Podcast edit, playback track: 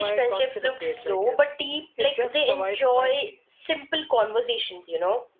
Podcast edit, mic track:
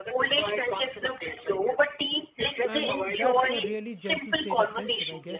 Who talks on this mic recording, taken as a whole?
both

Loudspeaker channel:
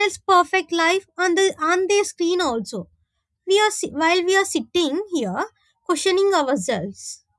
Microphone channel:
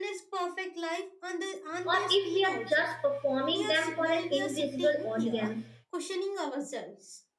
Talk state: both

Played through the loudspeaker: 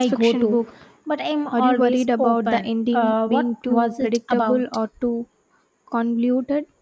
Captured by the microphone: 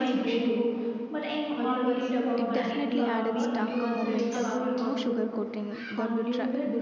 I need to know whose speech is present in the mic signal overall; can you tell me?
both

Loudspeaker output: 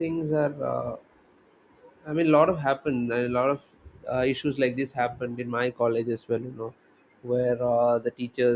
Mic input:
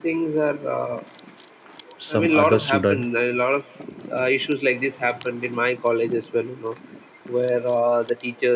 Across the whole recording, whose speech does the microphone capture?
both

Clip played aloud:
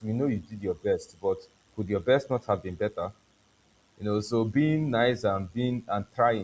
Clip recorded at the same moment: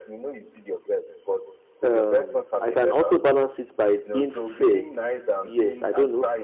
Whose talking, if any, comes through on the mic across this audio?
both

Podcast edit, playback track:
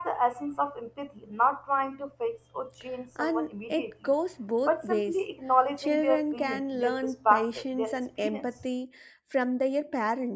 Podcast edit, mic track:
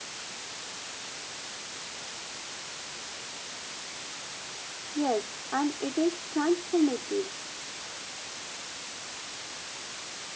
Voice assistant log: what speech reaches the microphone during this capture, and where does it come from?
user only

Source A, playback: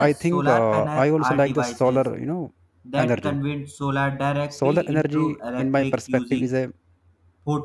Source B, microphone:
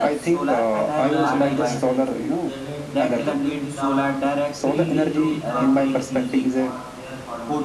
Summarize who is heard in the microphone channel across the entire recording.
both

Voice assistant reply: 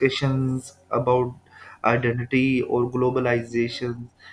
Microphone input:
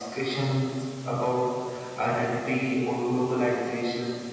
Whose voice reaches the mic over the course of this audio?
echo only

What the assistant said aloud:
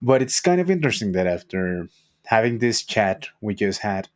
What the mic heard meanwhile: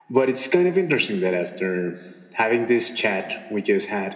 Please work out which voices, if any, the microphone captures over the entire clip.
echo only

